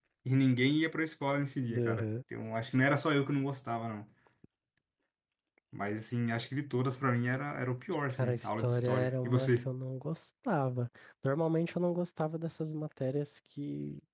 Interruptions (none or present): present